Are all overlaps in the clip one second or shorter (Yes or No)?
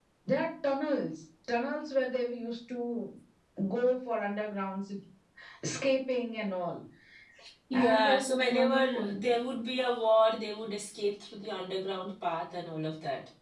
No